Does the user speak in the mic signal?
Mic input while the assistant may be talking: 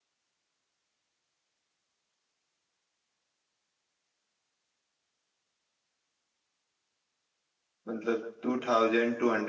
Yes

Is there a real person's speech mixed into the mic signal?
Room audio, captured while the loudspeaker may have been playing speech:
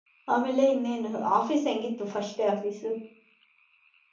Yes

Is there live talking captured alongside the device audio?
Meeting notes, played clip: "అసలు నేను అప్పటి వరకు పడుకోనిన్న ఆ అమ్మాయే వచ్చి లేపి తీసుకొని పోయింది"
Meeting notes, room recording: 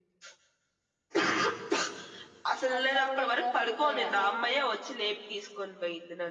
Yes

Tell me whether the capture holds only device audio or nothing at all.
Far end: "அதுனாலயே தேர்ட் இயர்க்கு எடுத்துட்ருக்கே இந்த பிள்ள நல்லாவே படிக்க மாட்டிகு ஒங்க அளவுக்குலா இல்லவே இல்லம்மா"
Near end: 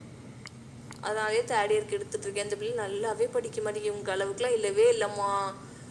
Yes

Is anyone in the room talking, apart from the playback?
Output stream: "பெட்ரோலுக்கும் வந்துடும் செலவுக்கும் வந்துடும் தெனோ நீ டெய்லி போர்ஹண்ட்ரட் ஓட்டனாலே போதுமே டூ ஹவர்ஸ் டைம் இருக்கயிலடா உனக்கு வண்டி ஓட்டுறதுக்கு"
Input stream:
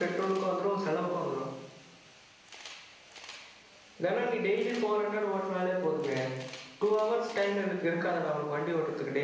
No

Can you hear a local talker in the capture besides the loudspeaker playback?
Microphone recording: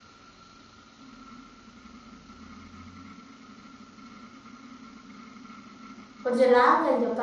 Yes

